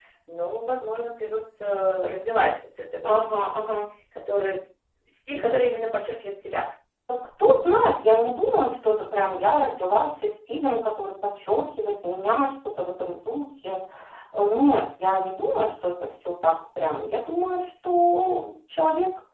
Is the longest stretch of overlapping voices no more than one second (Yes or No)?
Yes